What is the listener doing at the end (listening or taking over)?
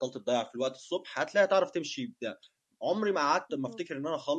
listening